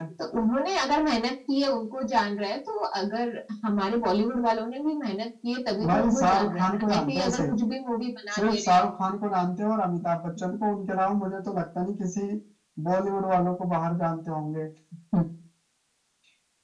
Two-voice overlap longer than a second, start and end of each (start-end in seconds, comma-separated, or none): 5.9-7.6